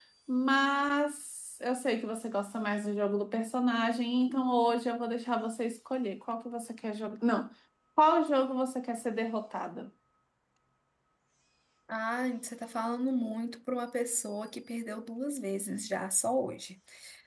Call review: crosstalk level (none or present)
none